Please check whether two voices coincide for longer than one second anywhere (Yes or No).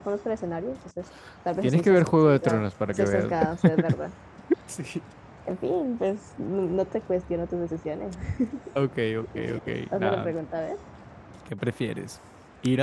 Yes